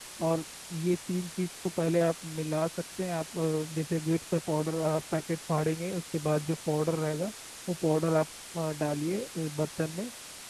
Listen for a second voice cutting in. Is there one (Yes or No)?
No